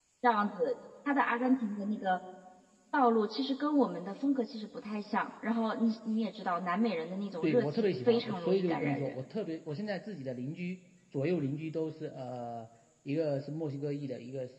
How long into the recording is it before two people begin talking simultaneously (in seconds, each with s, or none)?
7.4 s